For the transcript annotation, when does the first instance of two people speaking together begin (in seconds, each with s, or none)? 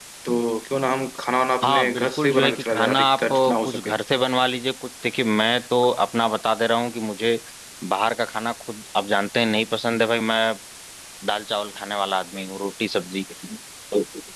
1.6 s